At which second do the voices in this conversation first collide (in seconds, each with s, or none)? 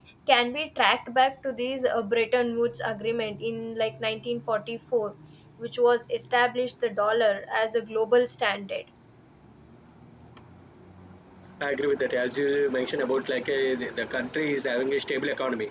none